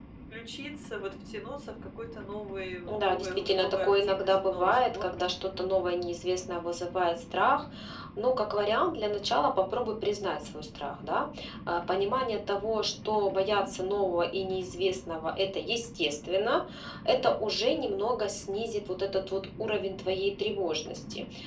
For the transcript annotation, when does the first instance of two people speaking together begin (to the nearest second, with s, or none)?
3 s